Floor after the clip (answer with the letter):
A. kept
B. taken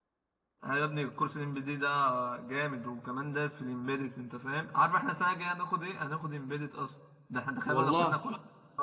A